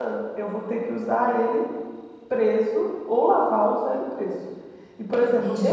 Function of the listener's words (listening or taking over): listening